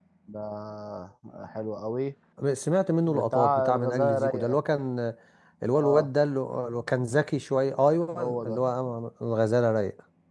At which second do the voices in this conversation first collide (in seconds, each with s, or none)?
3.1 s